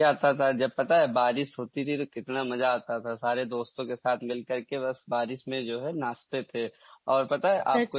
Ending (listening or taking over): listening